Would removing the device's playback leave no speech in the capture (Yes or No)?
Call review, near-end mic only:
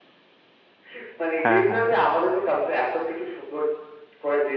No